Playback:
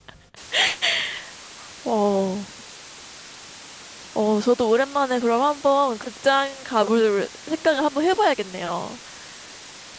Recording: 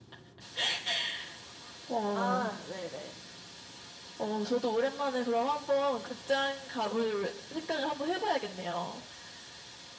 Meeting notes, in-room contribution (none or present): present